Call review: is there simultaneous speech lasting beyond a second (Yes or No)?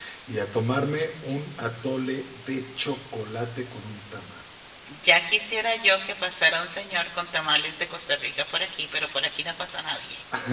No